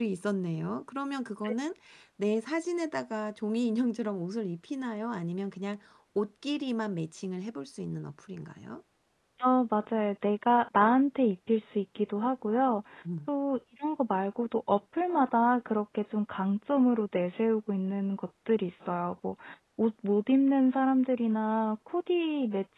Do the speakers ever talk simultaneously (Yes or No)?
No